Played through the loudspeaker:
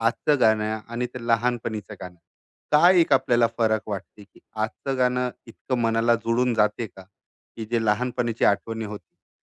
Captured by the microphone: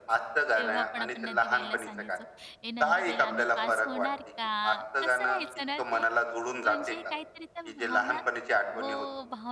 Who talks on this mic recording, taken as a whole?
both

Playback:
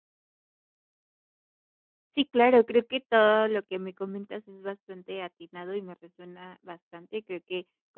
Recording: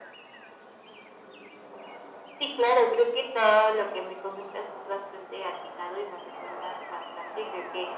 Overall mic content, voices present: echo only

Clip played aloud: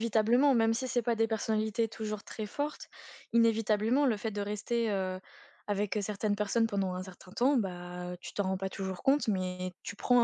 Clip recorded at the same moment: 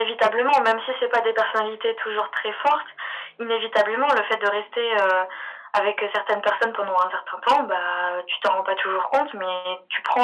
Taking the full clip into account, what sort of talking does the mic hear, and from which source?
echo only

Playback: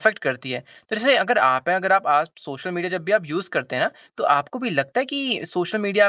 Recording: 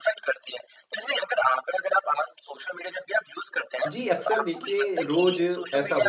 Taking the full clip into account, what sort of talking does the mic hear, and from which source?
both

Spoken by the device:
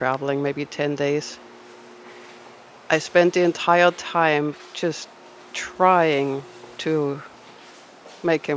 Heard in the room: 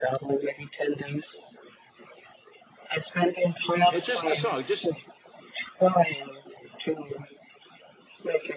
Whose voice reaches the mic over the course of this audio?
both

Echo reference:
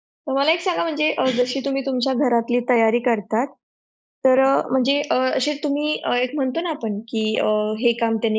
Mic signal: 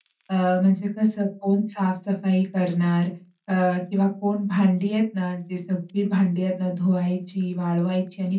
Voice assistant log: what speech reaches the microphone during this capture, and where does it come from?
user only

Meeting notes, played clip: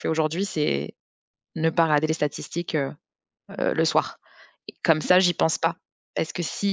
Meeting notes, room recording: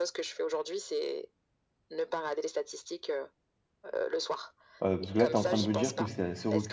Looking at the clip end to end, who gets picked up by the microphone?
both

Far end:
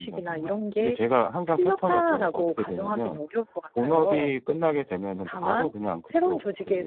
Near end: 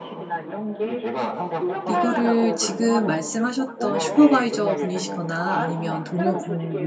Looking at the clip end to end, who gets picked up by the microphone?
both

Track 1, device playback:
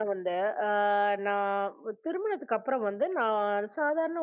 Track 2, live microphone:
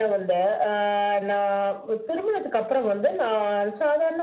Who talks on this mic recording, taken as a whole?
echo only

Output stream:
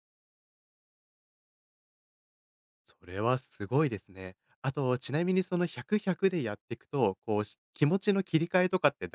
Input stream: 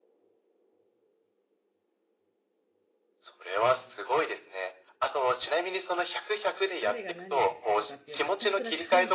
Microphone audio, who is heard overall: both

